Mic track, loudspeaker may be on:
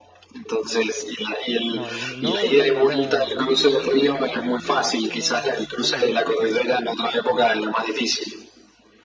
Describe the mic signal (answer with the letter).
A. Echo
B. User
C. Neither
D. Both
D